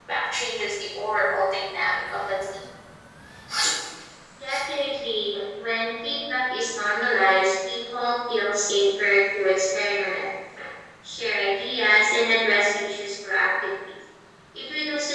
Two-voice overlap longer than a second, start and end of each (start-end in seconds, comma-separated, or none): none